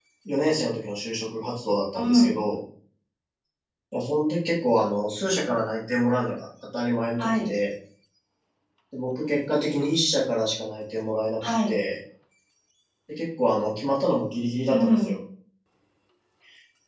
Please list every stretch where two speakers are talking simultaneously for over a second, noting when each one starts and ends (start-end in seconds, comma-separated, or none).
none